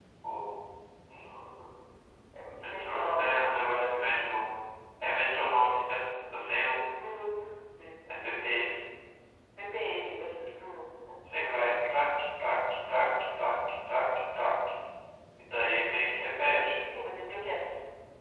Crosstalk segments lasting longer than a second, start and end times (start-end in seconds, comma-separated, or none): 2.6-3.8